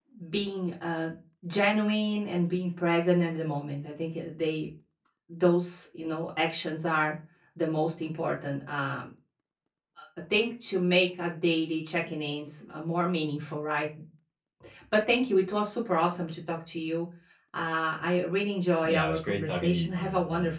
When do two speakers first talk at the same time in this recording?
18.8 s

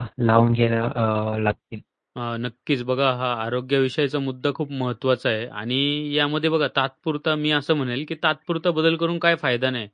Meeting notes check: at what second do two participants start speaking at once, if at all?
none

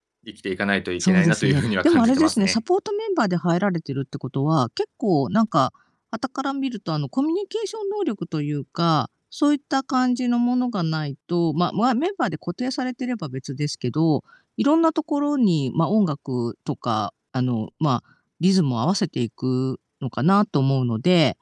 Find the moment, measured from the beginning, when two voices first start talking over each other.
1.0 s

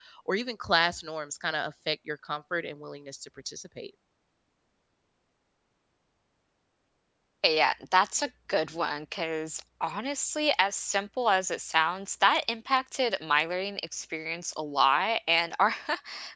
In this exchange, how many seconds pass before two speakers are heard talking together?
none

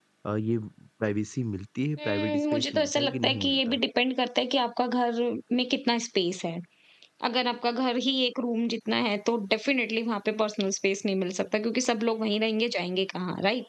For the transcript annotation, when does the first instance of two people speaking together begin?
2.0 s

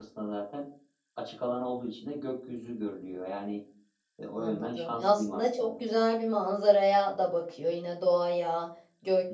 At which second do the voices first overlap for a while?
4.4 s

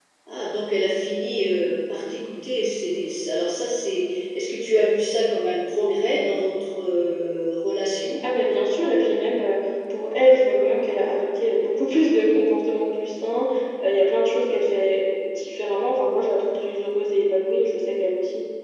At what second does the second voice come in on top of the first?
none

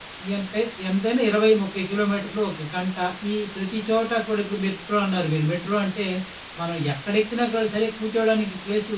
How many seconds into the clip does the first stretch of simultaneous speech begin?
none

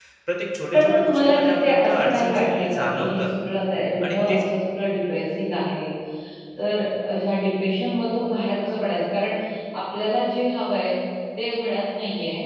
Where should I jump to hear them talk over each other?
0.7 s

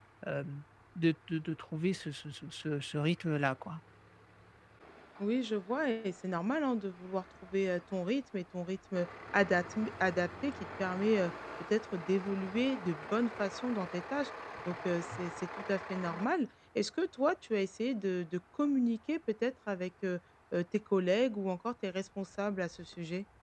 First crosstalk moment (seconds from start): none

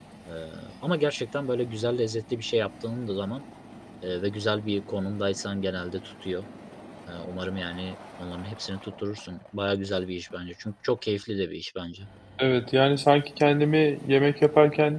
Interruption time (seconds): none

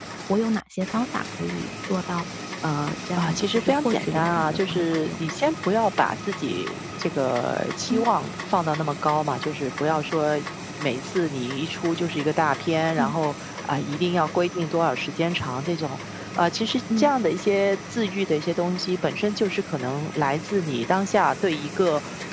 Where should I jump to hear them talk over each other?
3.1 s

